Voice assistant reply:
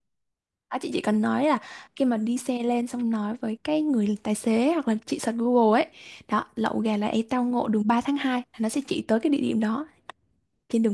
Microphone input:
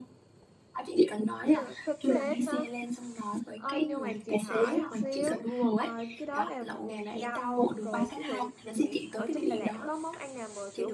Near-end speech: present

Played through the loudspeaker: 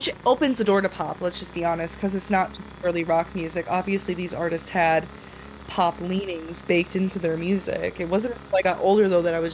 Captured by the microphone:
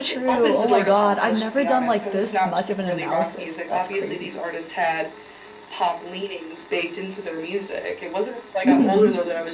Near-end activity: present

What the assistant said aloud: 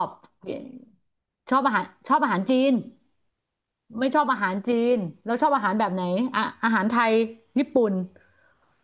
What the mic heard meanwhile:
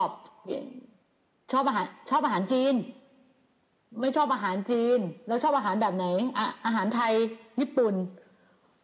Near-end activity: none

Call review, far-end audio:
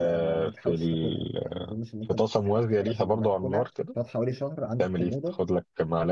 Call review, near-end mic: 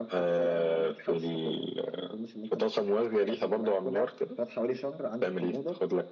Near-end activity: none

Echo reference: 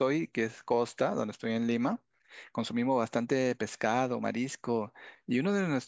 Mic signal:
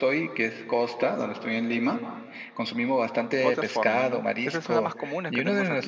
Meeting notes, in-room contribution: present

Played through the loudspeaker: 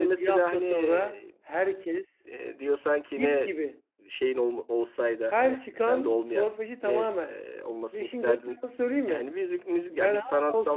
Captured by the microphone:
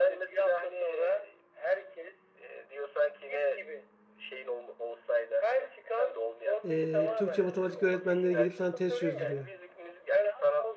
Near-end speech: present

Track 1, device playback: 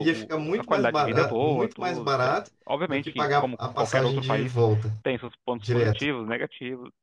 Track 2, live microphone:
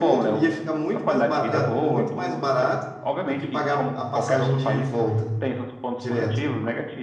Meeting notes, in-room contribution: none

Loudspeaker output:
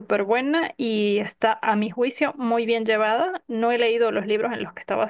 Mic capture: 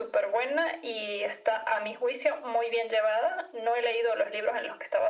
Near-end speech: none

